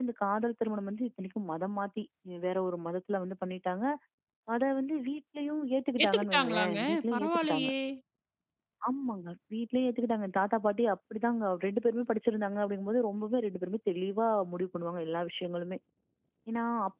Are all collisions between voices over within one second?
No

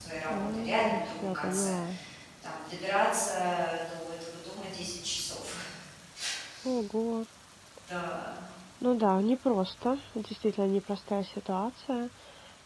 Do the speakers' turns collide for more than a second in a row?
Yes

